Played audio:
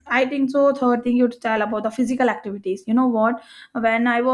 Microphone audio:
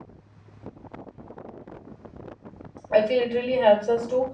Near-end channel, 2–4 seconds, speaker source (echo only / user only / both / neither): user only